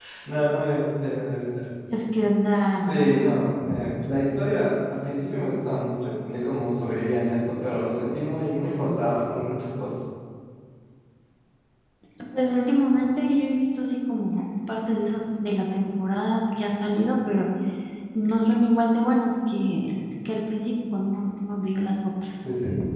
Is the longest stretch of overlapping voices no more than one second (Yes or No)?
Yes